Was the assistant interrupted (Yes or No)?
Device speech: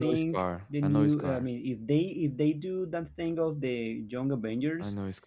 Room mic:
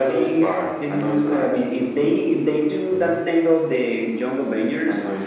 Yes